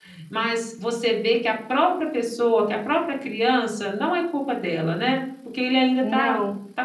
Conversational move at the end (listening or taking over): listening